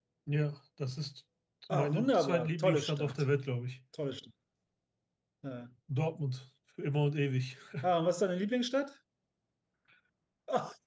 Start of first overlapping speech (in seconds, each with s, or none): 1.7 s